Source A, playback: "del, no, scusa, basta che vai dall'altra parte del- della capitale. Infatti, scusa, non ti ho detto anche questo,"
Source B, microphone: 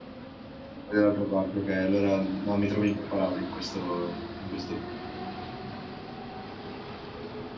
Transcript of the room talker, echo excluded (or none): È dall'altra parte, ok. Allora no, mi trovo impreparato in questo, in questo...